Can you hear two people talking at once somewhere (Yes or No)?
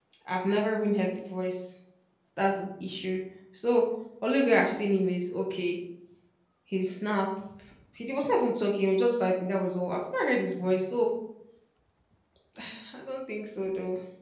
No